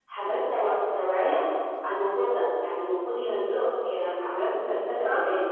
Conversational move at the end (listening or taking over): taking over